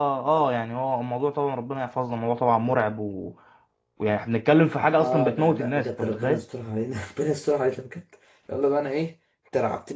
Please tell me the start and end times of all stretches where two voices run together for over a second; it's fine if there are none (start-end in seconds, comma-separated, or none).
5.0-6.4